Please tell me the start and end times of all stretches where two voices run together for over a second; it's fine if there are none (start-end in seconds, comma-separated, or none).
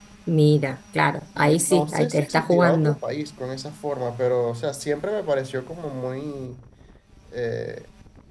1.4-3.0